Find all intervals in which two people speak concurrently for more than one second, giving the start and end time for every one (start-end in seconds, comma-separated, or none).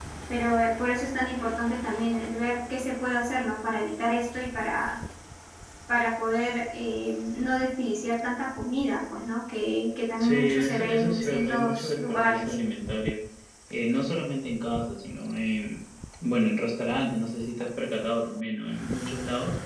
10.2-12.5